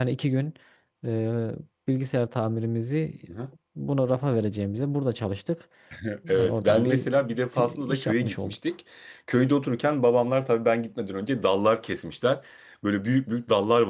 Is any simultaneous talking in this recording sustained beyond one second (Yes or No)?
Yes